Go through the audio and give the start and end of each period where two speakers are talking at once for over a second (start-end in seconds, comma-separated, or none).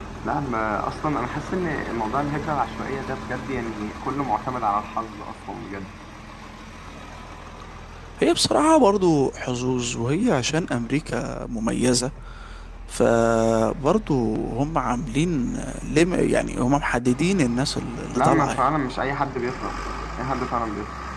none